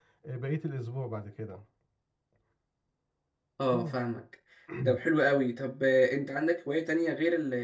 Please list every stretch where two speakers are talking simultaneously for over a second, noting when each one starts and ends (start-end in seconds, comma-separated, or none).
none